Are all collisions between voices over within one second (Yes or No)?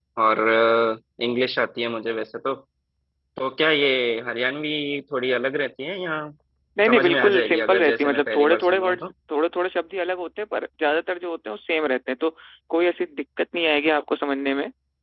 No